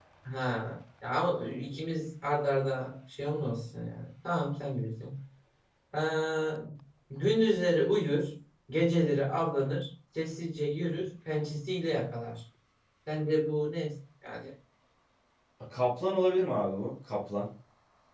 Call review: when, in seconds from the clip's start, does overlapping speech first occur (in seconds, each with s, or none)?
none